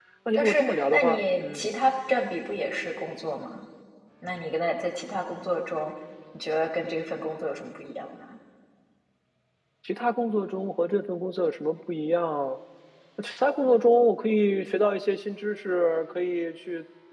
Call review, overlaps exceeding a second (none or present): present